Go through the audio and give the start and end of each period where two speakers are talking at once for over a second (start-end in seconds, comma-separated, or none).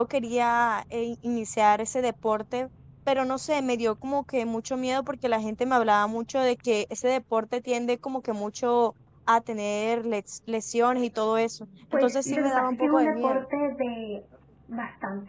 11.9-13.4